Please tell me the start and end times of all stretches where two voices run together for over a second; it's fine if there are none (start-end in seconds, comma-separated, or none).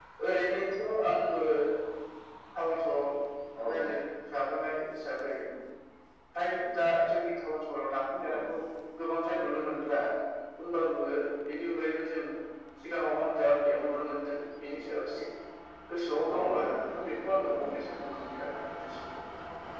16.3-17.8